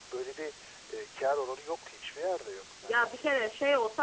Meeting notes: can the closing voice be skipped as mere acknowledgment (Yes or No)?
No